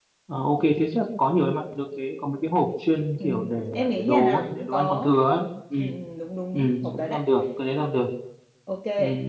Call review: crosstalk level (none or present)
present